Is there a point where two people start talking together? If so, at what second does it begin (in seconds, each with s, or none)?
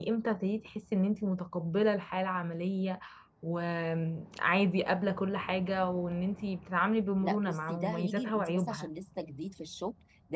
7.2 s